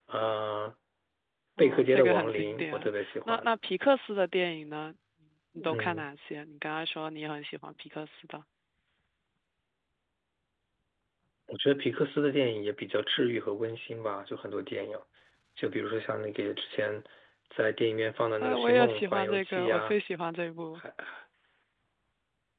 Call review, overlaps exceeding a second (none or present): present